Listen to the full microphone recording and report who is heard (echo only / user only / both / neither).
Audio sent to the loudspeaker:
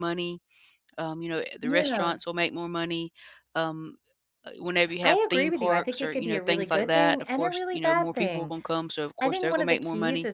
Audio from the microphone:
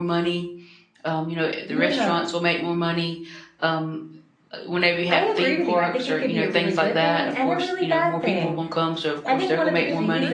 both